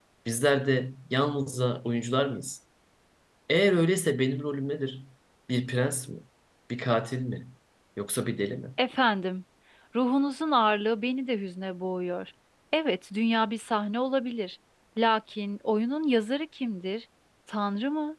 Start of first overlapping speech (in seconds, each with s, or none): none